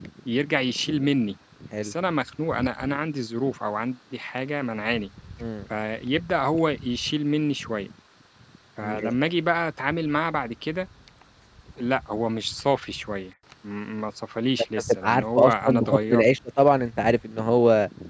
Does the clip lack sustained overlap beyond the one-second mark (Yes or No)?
No